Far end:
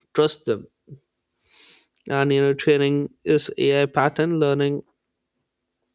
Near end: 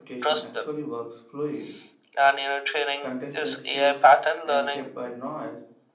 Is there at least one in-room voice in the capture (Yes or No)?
Yes